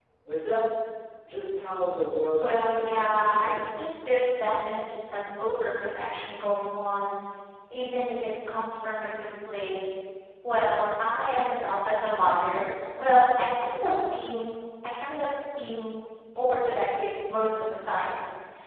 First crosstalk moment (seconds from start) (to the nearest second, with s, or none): 2 s